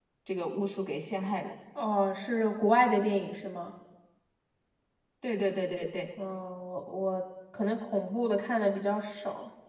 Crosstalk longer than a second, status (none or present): none